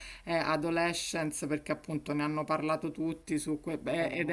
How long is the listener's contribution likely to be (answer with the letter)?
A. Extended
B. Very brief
B